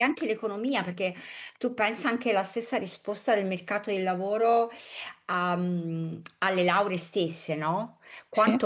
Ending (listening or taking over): listening